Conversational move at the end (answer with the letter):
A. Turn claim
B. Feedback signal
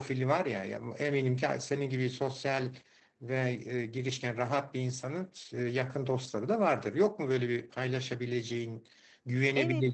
A